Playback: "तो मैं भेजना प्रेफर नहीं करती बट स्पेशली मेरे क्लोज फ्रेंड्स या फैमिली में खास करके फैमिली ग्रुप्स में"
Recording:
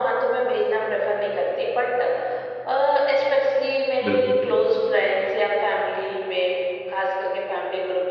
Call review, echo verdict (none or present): present